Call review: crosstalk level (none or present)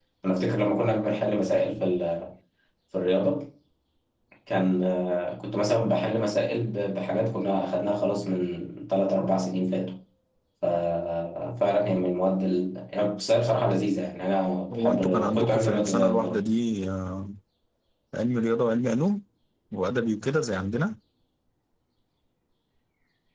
present